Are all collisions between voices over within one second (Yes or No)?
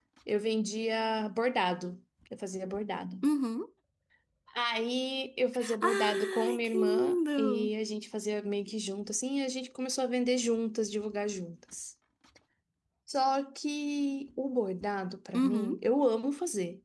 No